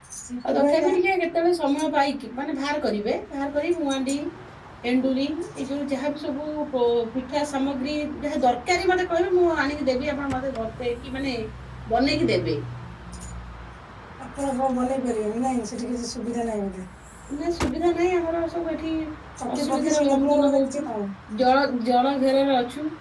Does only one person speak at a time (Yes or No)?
No